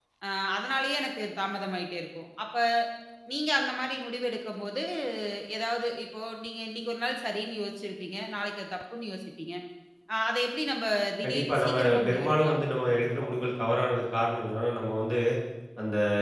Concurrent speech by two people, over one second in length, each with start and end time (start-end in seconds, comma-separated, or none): 11.2-12.6